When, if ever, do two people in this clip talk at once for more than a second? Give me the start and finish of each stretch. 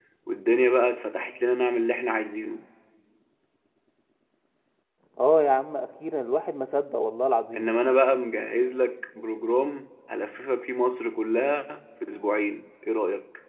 none

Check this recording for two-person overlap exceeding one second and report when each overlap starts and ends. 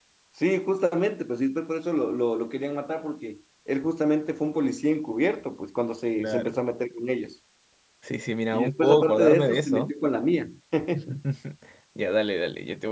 8.5-9.9

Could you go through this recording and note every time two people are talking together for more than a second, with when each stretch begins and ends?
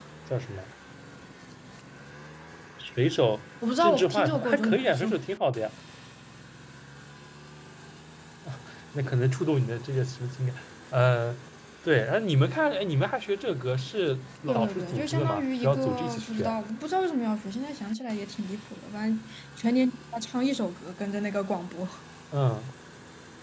3.8-5.1, 14.5-16.5

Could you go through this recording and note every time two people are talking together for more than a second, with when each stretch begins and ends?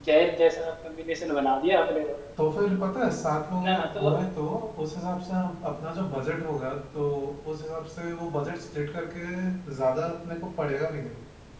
none

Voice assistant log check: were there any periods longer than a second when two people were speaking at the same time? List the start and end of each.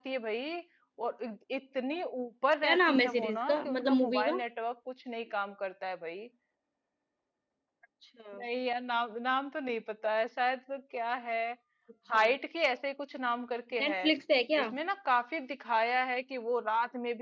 2.6-4.4

